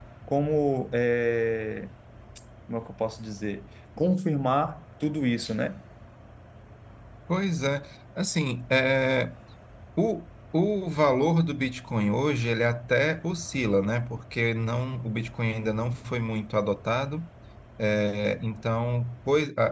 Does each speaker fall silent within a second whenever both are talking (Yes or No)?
Yes